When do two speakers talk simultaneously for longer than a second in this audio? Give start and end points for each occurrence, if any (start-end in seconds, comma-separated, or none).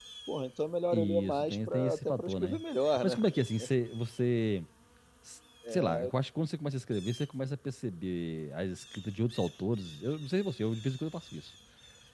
0.9-2.6